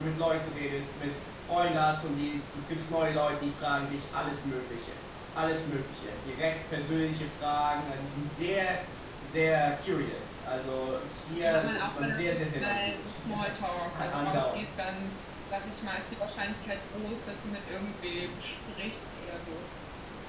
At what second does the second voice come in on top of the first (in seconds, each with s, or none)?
11.3 s